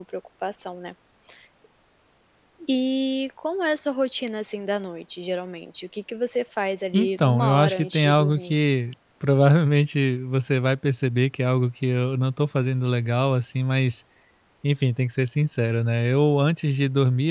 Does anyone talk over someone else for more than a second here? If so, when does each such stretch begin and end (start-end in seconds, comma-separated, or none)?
6.9-8.6